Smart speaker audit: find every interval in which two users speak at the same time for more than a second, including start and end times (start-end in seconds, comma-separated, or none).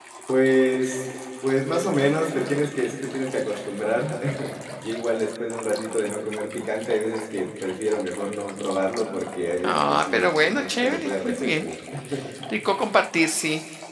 9.6-11.7